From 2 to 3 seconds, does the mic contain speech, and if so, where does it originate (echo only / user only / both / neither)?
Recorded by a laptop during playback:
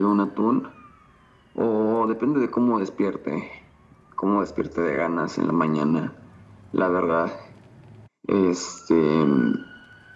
echo only